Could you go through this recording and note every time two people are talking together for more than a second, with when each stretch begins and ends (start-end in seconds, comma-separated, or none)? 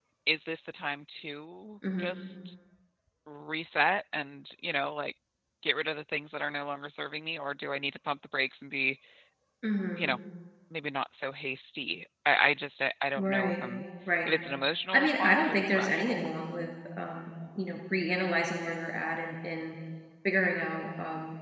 14.9-16.2